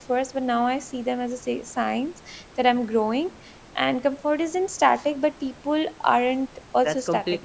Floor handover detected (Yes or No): Yes